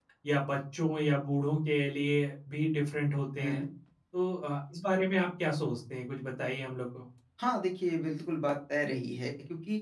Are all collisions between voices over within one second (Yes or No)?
Yes